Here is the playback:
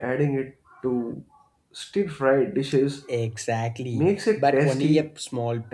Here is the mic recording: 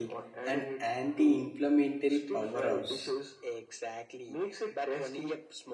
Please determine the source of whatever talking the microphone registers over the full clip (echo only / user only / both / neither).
both